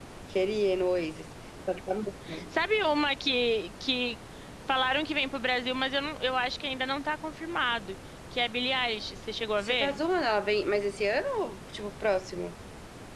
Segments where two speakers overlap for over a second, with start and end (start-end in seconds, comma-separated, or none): none